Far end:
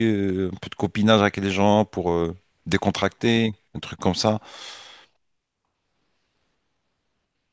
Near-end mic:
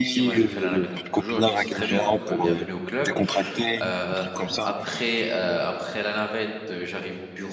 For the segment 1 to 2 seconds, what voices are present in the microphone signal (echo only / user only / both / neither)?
both